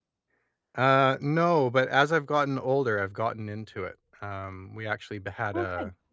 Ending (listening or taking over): listening